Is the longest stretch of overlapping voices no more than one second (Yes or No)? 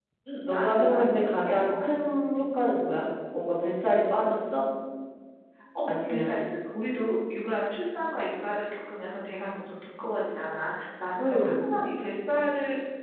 No